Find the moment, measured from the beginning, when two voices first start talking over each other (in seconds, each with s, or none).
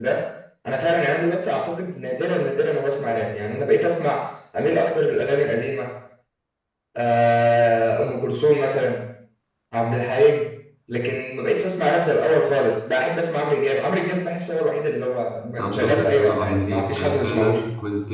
15.6 s